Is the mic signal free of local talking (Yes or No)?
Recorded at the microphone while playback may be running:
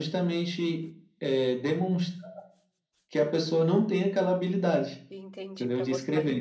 No